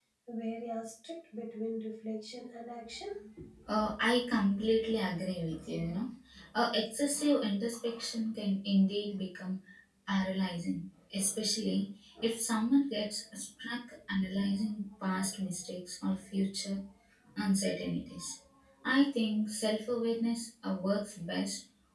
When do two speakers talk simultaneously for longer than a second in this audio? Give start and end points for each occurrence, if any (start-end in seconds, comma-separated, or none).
none